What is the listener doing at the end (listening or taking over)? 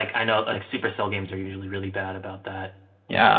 taking over